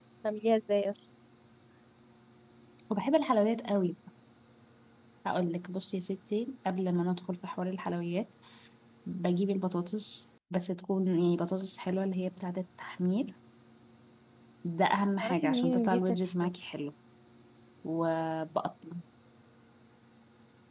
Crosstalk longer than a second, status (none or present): present